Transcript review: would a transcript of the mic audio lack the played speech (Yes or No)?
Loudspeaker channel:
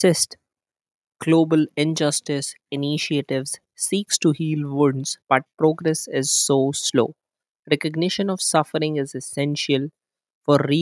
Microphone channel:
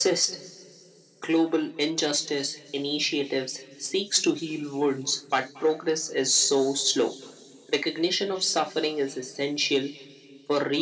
No